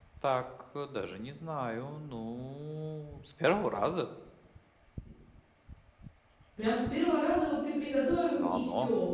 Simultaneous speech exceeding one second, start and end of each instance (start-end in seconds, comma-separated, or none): none